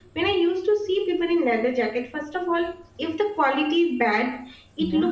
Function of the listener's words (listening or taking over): listening